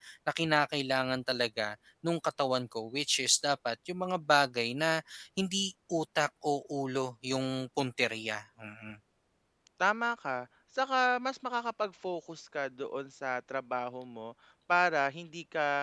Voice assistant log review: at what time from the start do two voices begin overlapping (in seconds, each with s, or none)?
none